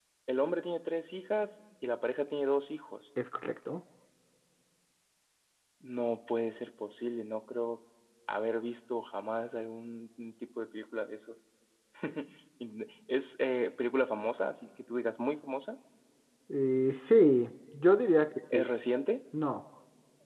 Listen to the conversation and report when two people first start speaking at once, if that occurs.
none

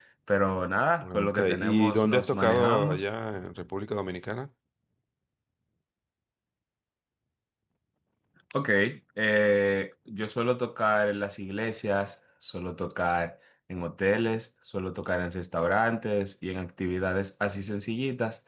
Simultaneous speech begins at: 1.0 s

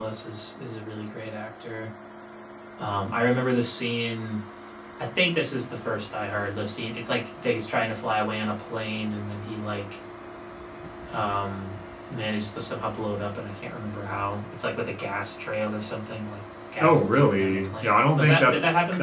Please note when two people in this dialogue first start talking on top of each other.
16.8 s

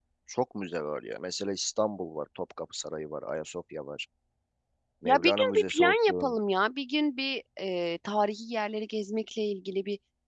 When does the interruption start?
5.0 s

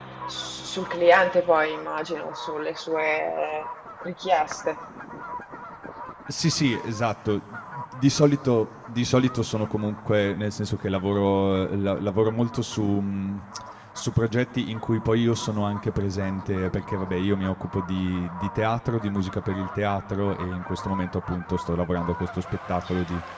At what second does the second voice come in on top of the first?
none

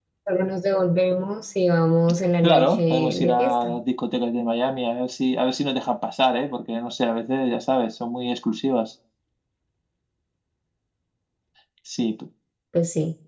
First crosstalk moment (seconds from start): 2.4 s

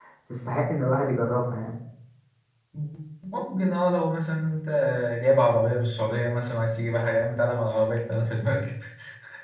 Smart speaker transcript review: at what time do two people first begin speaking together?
none

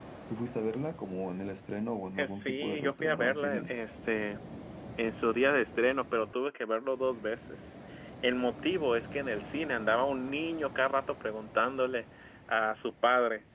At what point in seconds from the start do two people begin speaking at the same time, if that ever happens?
2.2 s

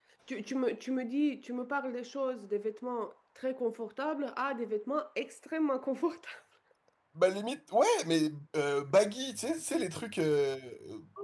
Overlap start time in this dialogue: none

